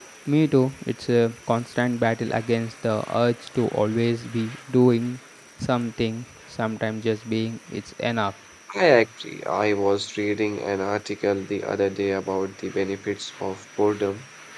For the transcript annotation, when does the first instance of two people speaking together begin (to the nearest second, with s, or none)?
none